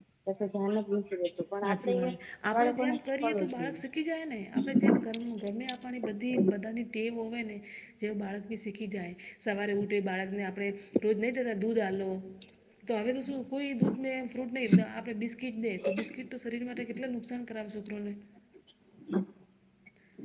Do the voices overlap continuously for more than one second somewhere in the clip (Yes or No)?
Yes